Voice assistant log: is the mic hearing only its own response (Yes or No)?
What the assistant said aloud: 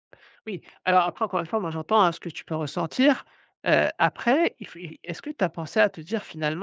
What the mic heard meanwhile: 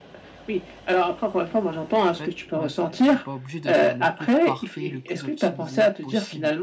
No